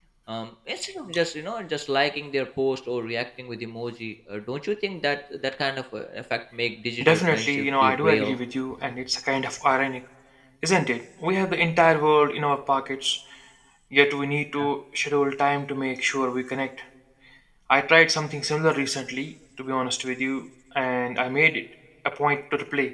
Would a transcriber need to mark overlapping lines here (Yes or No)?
Yes